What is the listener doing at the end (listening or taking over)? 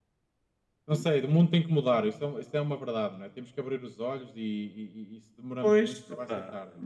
taking over